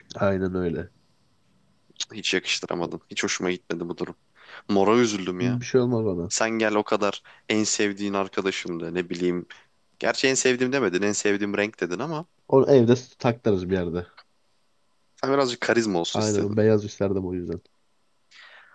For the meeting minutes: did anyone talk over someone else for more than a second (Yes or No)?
No